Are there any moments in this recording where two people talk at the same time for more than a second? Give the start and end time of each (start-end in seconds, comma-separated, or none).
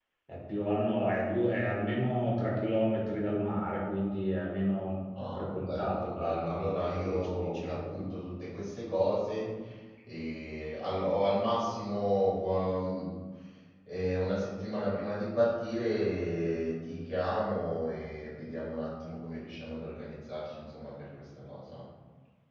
5.4-7.9